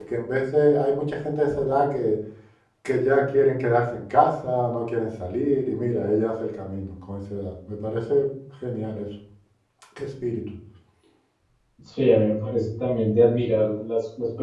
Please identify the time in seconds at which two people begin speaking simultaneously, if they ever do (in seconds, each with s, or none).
none